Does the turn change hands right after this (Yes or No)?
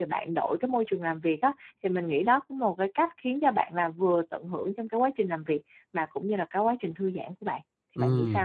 Yes